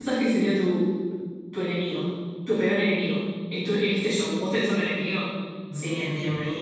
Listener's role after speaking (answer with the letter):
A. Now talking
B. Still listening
A